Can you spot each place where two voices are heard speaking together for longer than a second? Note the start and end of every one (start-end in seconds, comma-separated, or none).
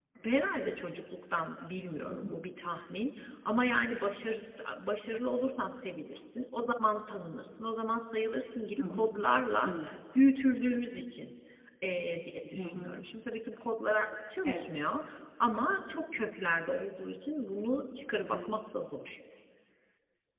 none